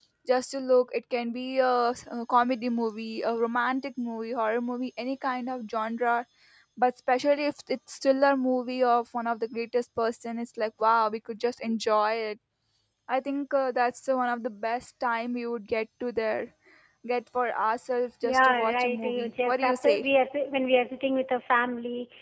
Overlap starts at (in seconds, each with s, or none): 18.2 s